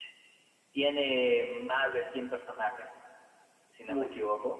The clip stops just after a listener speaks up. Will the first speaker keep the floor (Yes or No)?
Yes